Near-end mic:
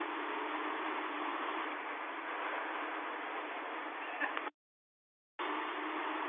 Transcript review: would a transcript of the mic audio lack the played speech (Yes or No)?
Yes